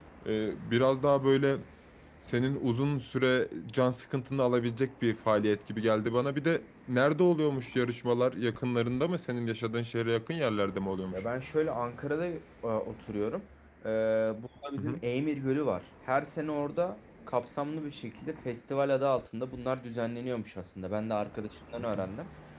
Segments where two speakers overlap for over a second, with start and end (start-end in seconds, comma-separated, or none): none